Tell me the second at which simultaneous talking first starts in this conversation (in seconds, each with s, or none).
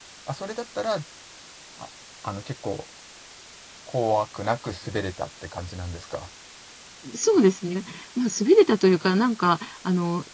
none